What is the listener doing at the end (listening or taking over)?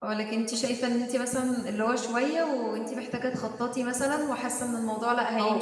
taking over